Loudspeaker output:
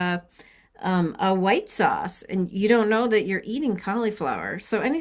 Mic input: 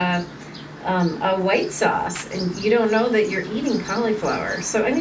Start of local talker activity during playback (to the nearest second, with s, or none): none